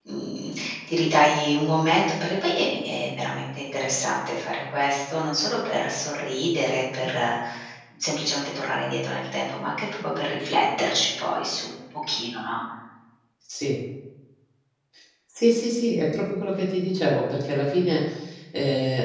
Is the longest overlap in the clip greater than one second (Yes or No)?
No